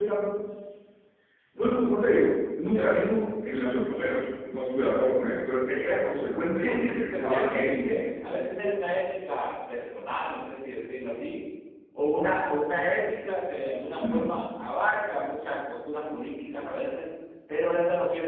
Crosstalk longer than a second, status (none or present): present